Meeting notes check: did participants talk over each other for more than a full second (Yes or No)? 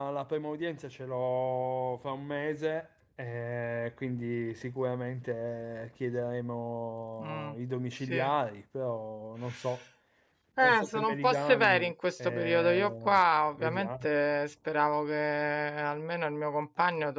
Yes